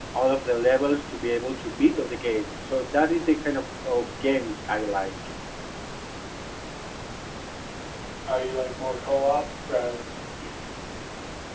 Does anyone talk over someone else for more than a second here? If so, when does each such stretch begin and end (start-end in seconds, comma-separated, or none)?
none